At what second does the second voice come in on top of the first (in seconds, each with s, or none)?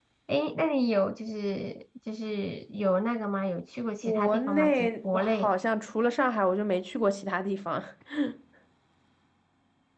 4.0 s